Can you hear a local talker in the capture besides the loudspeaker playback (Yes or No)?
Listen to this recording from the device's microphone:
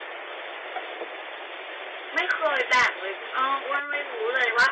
Yes